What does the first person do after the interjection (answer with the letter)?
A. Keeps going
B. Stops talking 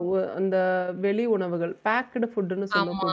A